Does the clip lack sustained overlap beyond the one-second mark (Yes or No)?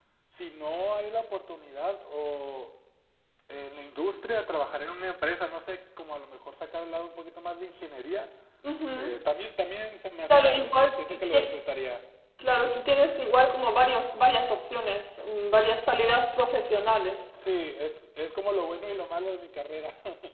No